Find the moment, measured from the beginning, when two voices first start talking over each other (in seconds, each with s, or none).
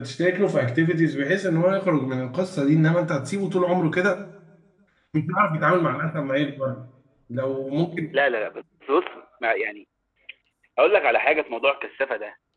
none